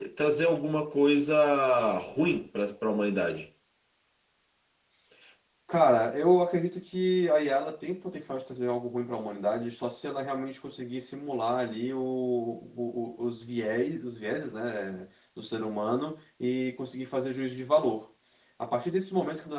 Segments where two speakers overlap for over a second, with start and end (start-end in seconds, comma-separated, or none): none